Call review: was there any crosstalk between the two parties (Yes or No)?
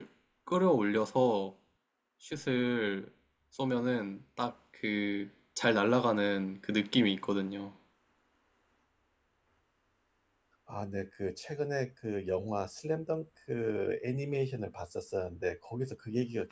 No